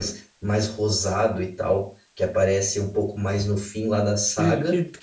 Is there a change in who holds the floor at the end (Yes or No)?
Yes